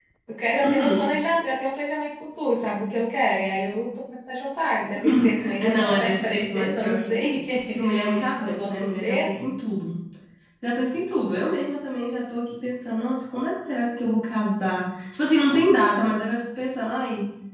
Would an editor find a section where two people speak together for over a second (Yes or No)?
Yes